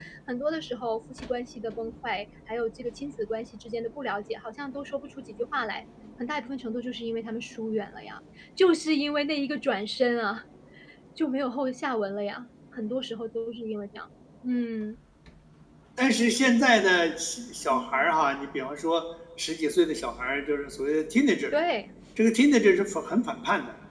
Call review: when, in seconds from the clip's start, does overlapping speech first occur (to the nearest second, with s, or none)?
none